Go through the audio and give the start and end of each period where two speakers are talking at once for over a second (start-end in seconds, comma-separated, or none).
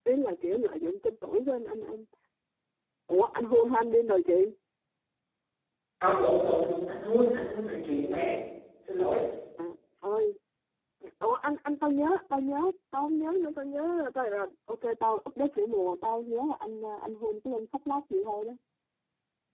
none